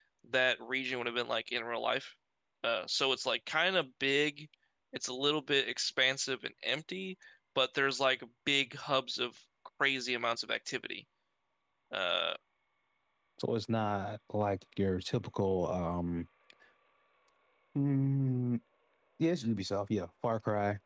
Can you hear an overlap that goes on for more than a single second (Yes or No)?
No